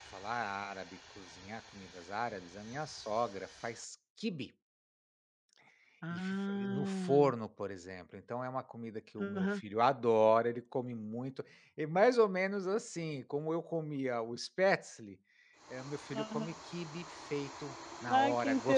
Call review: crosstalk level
present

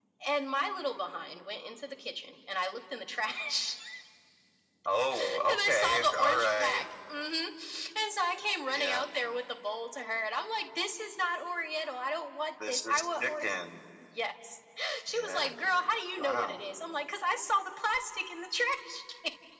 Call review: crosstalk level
present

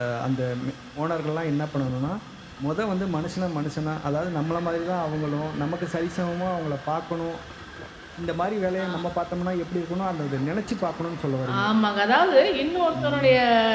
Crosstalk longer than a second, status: none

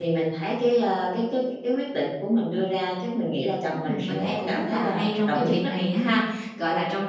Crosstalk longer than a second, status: present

